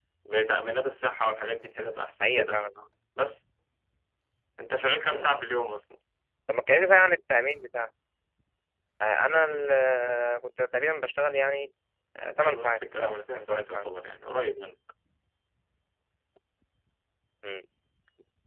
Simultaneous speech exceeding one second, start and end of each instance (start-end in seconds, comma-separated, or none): 12.4-13.8